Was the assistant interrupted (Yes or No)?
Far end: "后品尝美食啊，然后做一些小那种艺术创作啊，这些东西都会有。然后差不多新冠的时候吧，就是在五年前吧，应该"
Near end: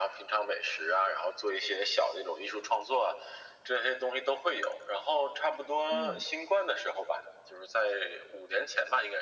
Yes